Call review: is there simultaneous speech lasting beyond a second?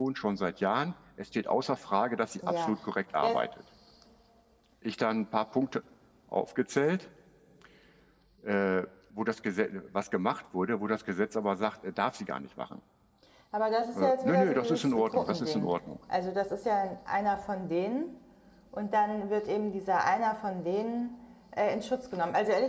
Yes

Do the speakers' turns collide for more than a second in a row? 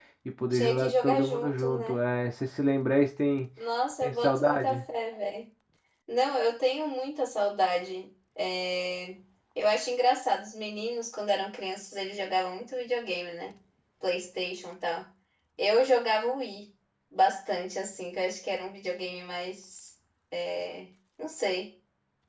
Yes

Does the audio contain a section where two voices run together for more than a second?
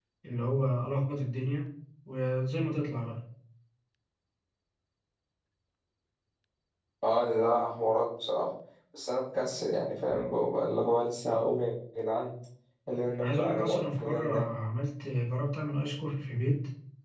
Yes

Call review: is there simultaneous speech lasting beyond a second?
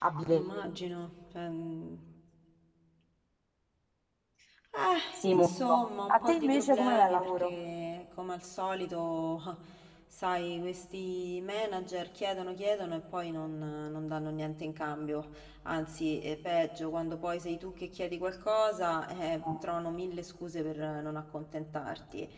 Yes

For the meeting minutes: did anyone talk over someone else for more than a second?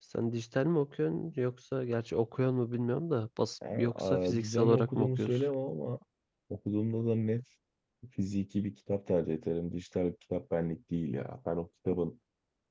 Yes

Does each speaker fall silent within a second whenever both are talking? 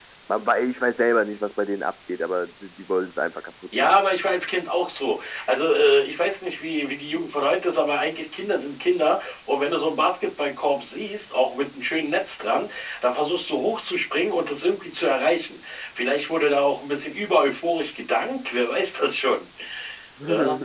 Yes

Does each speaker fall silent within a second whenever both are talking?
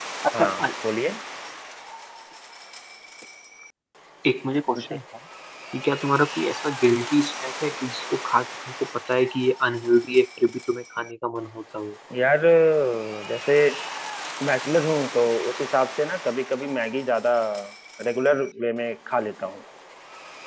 Yes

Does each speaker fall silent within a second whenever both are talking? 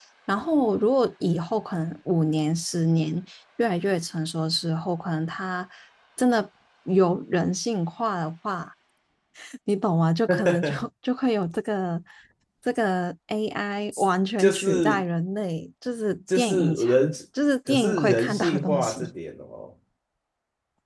No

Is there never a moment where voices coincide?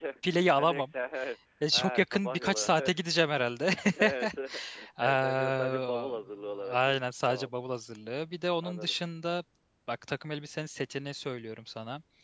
No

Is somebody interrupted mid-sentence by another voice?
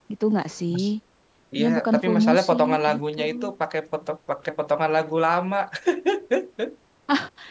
Yes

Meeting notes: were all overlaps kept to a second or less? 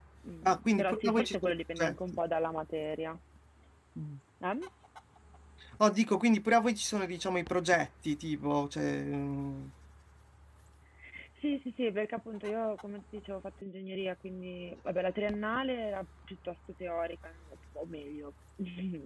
No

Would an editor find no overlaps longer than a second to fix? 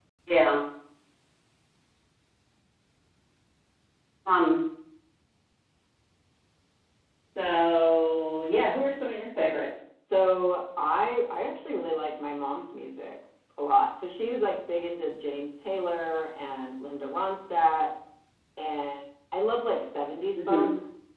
Yes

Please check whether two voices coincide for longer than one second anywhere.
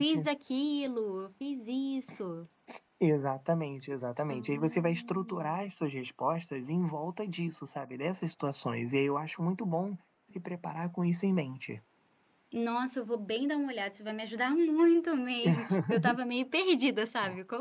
Yes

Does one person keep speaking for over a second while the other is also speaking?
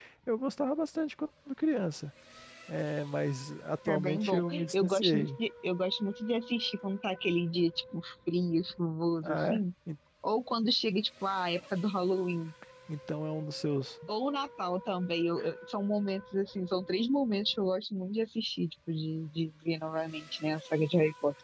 Yes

